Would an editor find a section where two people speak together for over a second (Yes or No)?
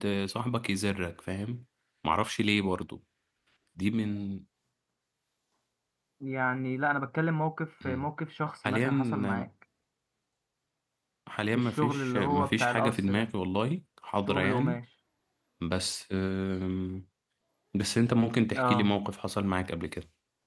Yes